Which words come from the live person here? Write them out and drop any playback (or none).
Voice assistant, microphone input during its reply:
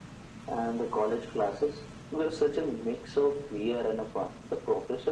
none